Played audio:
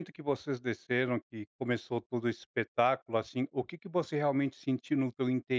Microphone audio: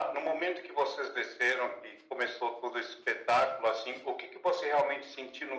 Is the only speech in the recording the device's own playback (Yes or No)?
Yes